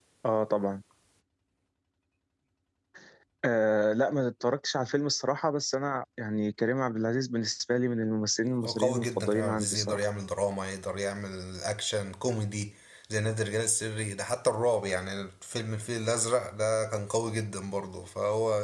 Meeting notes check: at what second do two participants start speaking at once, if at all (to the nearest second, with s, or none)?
9 s